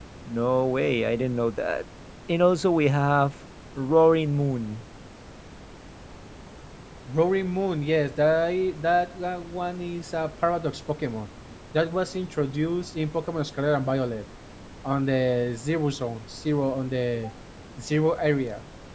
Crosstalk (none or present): none